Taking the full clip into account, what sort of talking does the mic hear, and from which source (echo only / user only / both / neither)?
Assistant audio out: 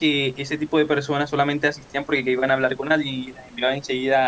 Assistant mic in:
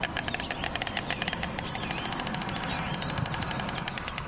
neither